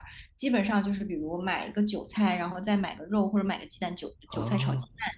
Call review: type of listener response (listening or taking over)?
listening